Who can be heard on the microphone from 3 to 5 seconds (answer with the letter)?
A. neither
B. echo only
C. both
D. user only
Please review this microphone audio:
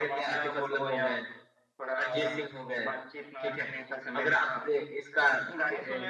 B